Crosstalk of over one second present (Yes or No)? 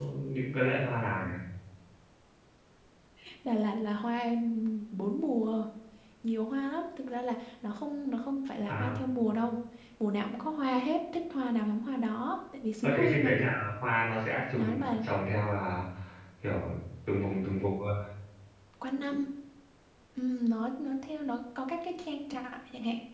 No